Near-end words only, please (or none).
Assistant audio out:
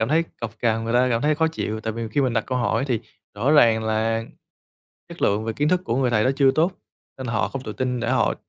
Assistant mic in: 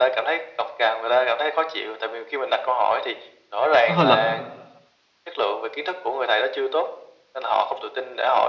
nó hơi lệch.